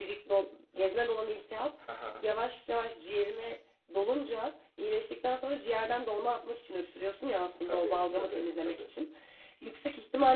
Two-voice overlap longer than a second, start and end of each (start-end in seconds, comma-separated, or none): 7.7-8.9